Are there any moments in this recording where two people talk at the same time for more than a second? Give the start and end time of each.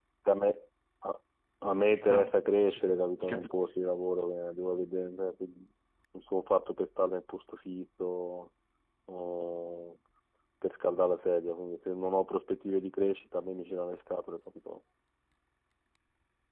1.9-3.6

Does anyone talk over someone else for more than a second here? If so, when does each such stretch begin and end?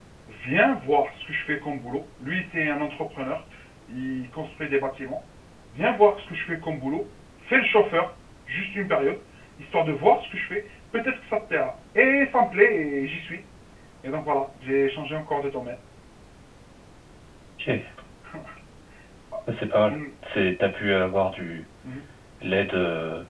none

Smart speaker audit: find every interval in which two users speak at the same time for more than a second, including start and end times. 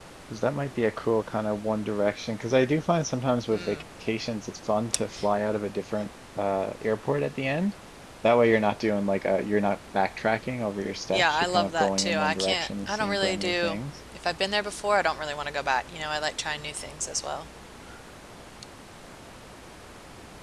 11.1-13.8

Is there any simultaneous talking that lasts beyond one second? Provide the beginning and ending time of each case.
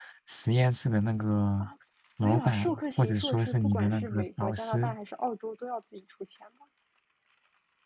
2.2-5.0

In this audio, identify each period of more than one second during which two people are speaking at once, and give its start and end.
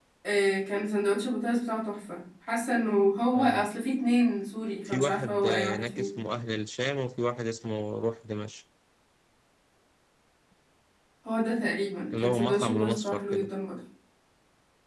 4.8-6.2, 12.1-13.5

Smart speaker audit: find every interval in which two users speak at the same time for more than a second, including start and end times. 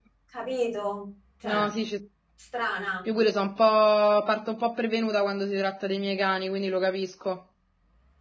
none

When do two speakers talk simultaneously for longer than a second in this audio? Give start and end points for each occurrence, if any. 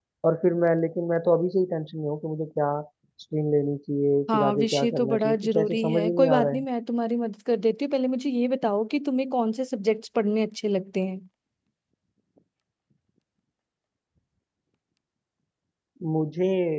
4.3-6.6

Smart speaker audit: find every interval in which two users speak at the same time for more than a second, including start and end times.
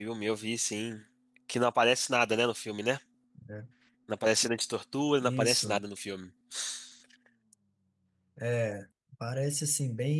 none

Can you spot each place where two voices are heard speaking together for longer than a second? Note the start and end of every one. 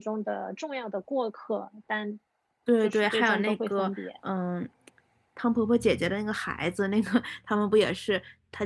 2.8-4.1

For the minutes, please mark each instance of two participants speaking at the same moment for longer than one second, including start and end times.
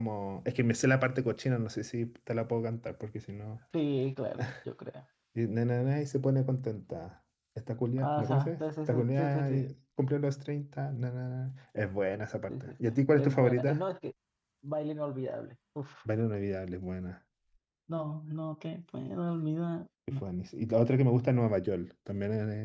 8.0-9.6, 12.5-13.9

